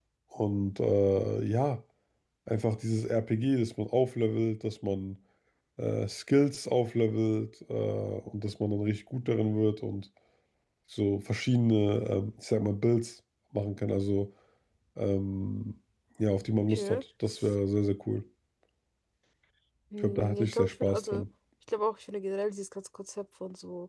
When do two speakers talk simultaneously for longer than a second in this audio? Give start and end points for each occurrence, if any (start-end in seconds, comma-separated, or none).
20.0-21.2